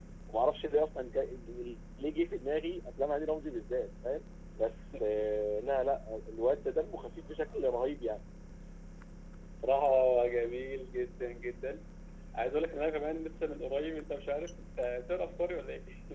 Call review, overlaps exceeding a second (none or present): none